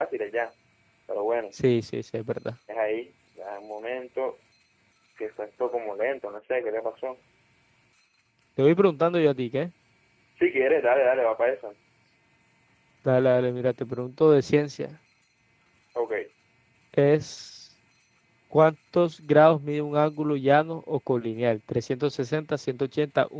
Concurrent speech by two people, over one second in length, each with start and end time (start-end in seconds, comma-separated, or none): none